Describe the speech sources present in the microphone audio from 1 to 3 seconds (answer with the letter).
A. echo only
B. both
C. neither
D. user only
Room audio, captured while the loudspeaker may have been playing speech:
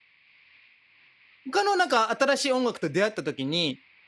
D